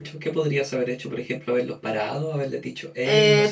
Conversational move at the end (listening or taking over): taking over